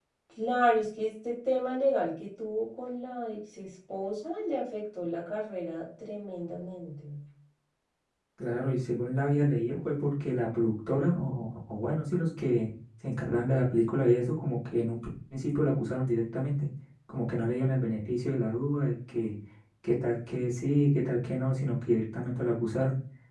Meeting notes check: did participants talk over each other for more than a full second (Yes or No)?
No